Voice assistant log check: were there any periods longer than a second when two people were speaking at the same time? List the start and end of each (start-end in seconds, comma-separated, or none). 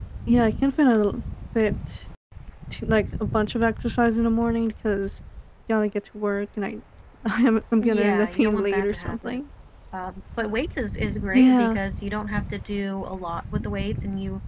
7.8-9.4